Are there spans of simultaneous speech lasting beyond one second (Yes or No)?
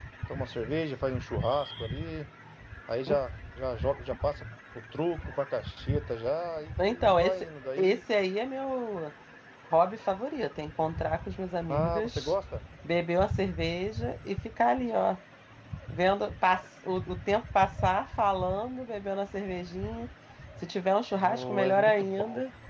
Yes